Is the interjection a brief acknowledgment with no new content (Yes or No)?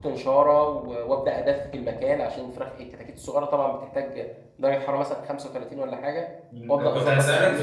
No